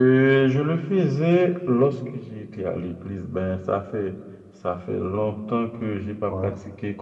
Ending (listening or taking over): listening